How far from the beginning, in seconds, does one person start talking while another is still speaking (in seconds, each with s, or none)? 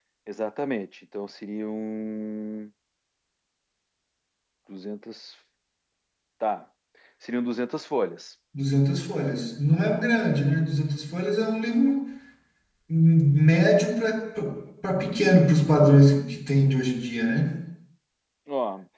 none